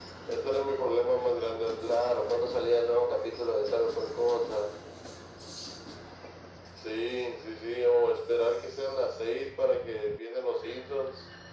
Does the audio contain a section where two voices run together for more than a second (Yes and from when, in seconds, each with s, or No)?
No